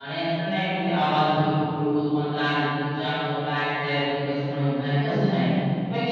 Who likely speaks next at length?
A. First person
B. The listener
A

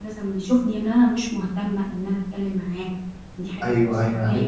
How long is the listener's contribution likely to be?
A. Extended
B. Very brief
A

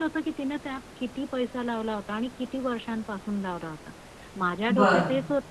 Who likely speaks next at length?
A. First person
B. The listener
A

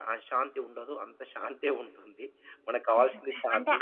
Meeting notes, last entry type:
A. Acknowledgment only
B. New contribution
B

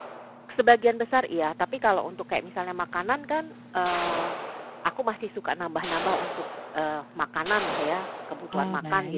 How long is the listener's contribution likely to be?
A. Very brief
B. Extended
B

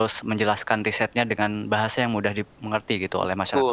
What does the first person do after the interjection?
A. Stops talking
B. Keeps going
A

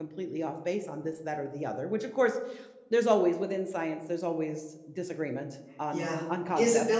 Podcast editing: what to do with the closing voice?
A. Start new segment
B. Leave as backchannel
A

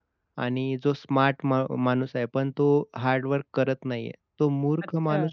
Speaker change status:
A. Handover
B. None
B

